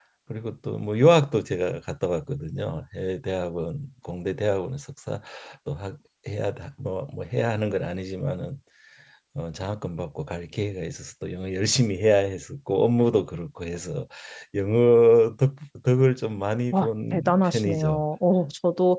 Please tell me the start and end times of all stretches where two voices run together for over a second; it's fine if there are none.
16.7-18.0

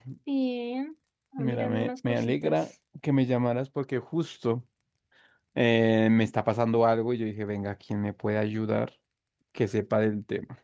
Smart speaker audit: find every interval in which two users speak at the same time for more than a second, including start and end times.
1.4-2.6

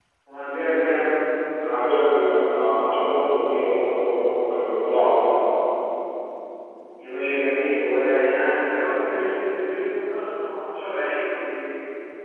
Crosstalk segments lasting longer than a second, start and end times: none

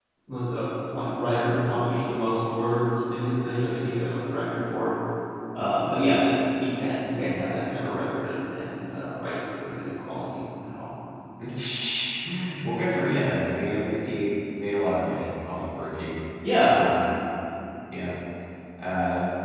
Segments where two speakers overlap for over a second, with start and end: none

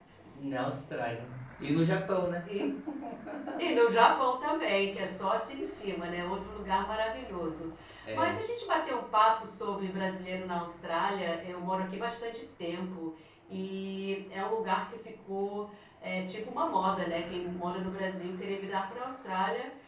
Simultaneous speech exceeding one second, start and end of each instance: none

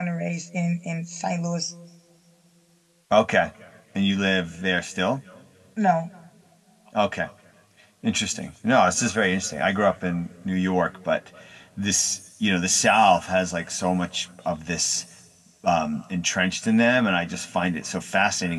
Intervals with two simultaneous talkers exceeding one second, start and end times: none

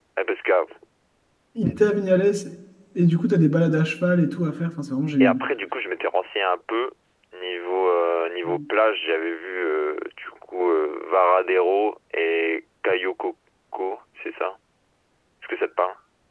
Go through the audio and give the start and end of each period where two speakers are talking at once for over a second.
none

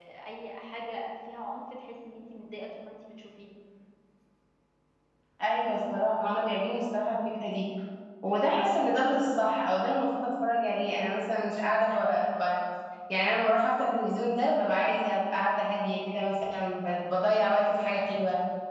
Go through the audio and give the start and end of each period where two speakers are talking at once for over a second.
none

